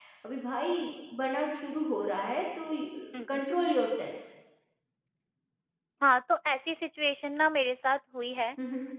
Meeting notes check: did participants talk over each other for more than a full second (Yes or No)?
No